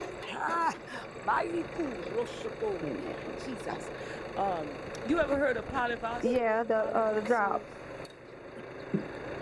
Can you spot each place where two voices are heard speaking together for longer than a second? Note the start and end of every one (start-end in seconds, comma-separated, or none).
6.2-7.6